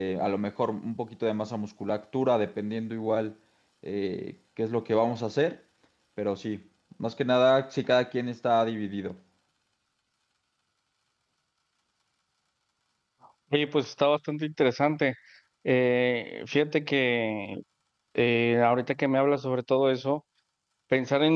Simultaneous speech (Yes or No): No